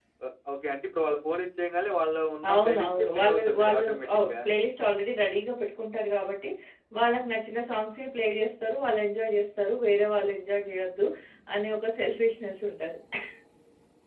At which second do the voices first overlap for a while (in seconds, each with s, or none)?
2.5 s